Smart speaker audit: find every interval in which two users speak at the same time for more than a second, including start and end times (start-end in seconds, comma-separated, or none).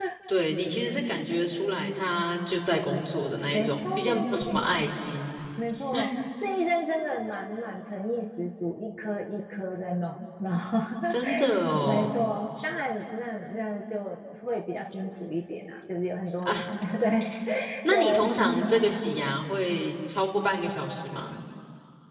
3.5-4.8